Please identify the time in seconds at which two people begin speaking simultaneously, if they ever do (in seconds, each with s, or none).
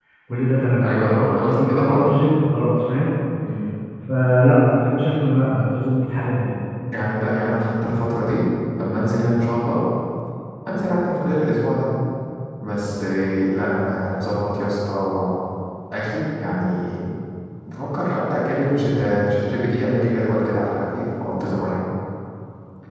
0.8 s